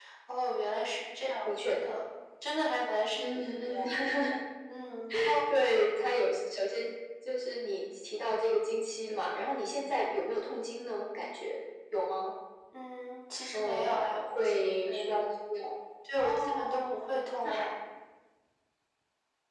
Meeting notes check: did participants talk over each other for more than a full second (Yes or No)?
Yes